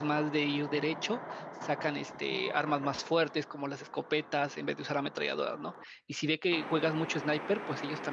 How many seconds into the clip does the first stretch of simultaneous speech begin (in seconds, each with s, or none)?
none